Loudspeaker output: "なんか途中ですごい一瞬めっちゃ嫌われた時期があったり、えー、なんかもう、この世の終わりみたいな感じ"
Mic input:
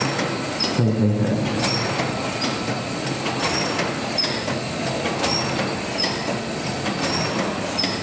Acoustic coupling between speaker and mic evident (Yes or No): No